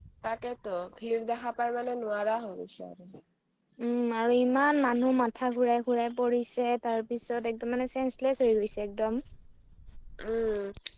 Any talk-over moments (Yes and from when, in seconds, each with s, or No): No